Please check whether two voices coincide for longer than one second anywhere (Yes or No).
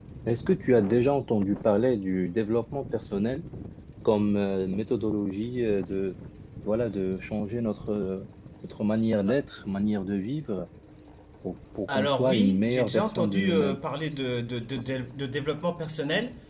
Yes